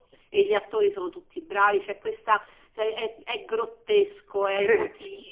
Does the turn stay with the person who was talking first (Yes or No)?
Yes